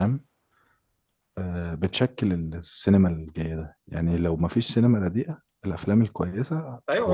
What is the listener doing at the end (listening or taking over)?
taking over